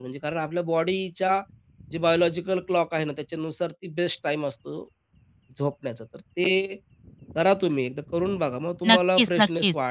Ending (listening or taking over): taking over